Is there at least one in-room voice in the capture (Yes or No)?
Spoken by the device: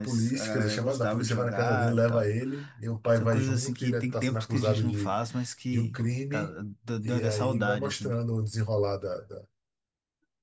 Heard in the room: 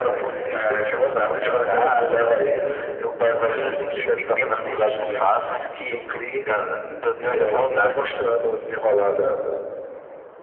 No